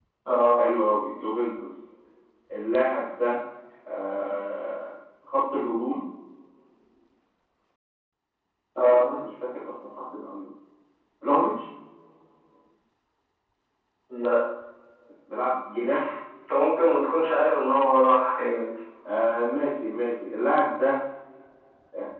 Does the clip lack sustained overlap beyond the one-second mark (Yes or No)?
Yes